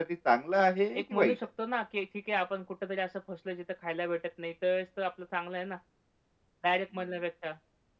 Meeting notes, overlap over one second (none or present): none